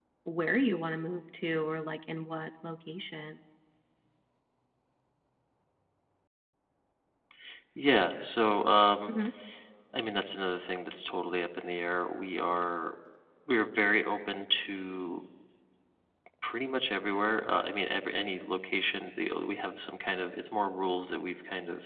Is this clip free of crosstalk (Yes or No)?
Yes